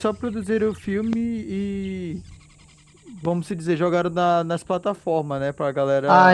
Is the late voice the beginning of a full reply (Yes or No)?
Yes